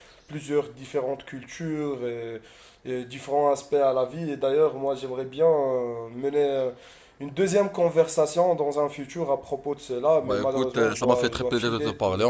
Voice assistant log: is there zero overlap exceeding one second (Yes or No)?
No